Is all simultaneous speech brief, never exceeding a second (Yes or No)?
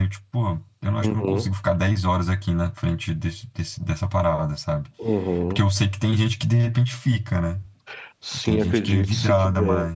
No